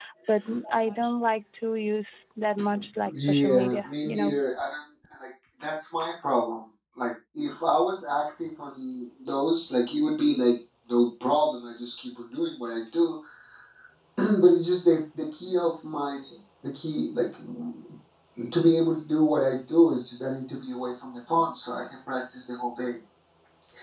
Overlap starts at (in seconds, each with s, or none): 3.0 s